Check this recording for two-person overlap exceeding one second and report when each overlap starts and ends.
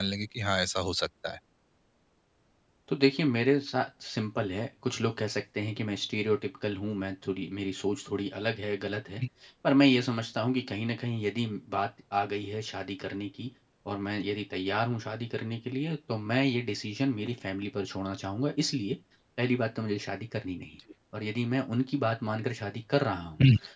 none

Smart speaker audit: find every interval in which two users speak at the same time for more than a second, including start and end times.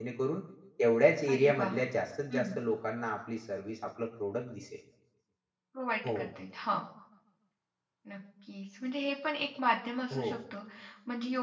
none

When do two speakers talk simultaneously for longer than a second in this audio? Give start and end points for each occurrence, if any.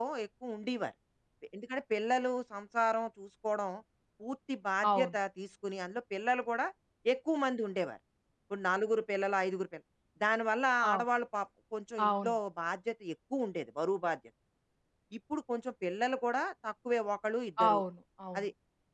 none

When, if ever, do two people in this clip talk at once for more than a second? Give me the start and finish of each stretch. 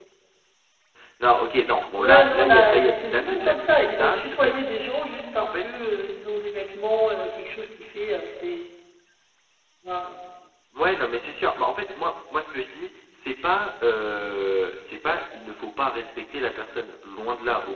2.0-4.7

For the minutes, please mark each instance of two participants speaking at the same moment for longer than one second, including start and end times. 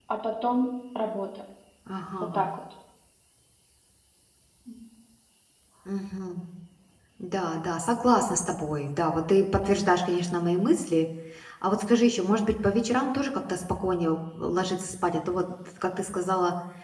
none

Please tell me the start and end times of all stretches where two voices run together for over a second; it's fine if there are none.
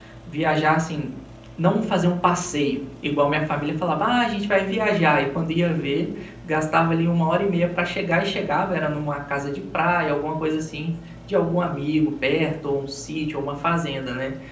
none

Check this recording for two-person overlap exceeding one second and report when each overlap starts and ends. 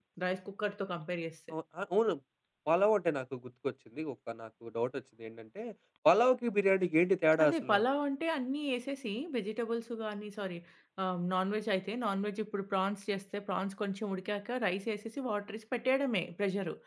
none

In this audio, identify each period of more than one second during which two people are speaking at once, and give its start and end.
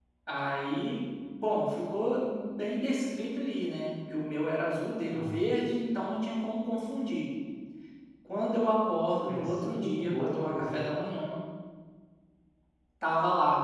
9.3-11.1

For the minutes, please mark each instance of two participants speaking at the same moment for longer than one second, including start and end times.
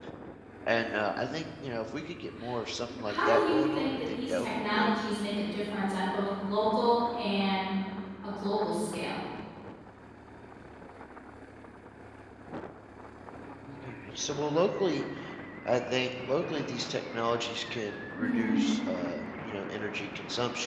3.0-5.0

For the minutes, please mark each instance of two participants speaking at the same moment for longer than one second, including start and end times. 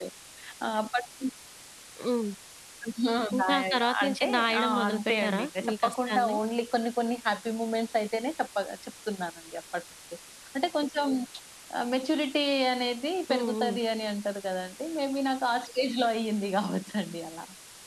3.4-6.4

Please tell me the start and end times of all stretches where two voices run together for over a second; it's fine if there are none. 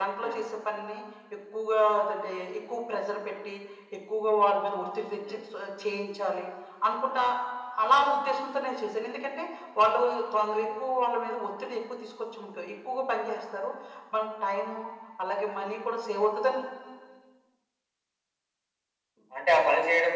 none

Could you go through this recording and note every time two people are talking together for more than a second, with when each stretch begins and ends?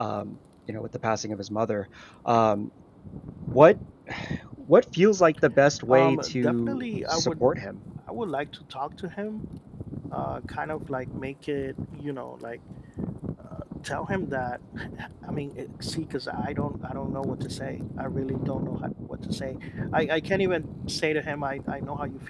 5.9-7.4

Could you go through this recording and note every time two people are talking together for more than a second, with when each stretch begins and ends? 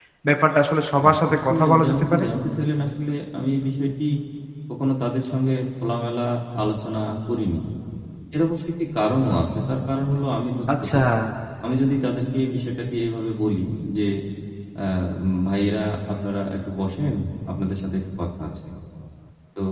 1.0-2.2

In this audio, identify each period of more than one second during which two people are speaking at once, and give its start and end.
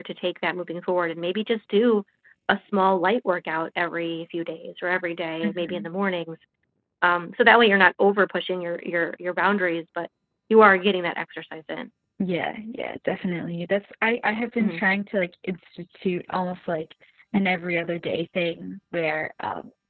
none

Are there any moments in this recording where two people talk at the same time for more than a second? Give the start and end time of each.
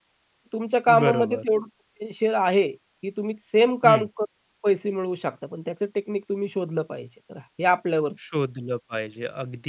none

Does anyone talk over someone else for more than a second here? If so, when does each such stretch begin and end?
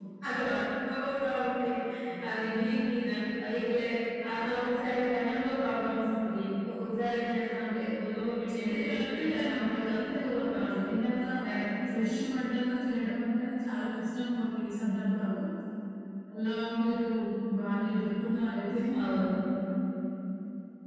8.6-10.9

